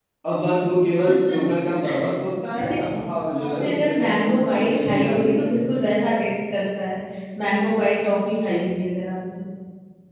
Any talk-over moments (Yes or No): Yes